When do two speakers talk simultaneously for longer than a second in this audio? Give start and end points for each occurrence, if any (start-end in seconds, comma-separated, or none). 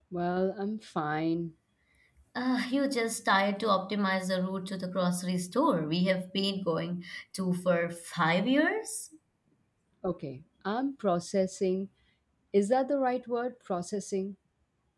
none